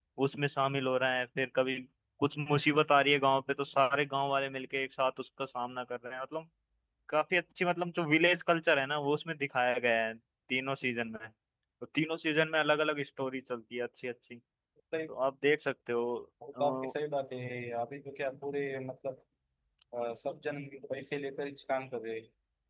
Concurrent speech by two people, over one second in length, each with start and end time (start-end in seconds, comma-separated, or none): none